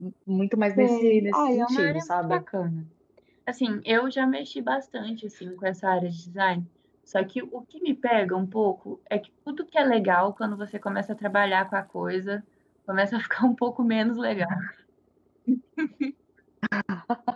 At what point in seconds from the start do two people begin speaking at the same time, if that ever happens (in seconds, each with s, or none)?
0.8 s